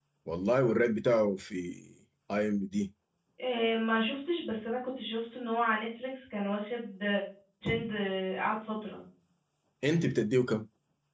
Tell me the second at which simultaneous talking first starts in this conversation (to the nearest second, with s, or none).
none